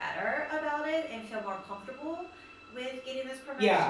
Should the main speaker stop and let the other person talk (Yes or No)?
Yes